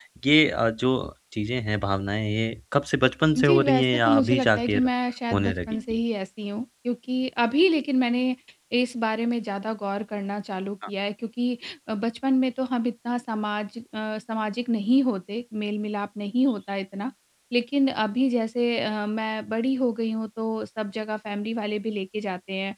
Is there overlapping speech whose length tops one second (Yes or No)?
Yes